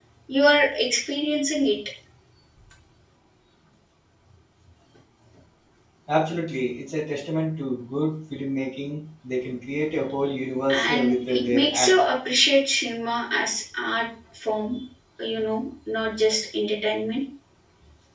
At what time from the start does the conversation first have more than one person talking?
10.7 s

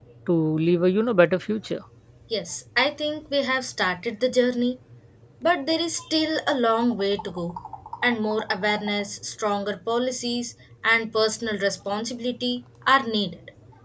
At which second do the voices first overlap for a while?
none

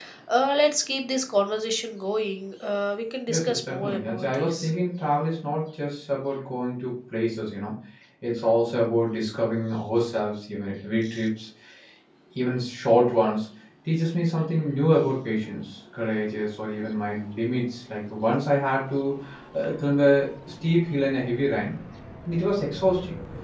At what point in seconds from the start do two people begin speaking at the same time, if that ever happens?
3.3 s

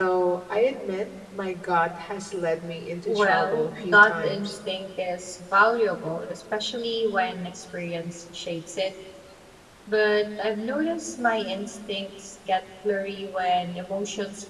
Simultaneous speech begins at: 3.1 s

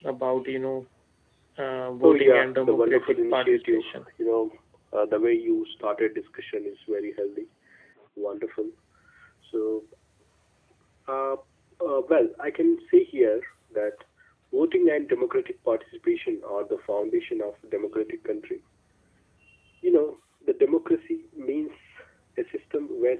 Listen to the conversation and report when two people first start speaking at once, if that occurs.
2.0 s

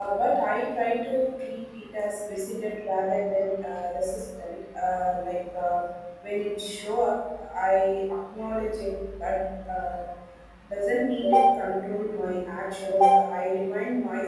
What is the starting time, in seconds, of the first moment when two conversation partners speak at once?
none

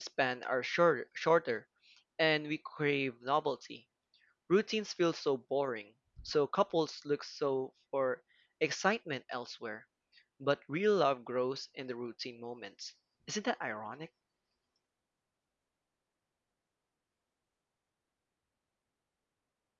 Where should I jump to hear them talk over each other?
none

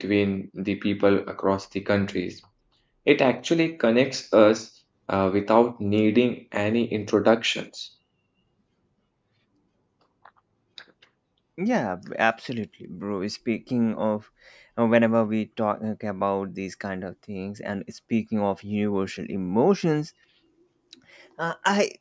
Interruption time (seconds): none

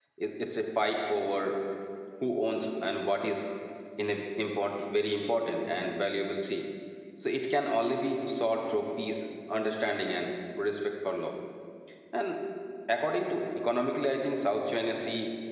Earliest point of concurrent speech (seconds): none

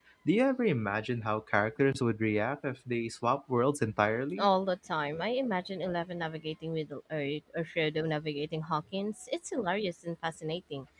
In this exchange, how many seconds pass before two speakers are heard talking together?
none

